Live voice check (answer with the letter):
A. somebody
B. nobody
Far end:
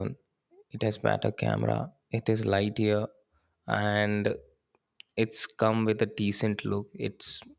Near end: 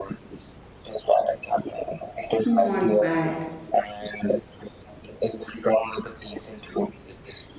A